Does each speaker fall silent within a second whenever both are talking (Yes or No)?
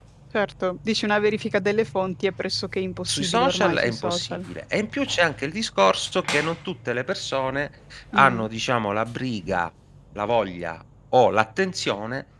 No